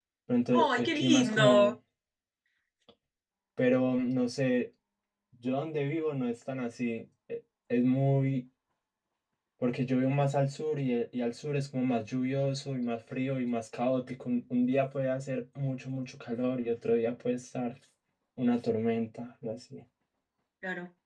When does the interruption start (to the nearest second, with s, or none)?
1 s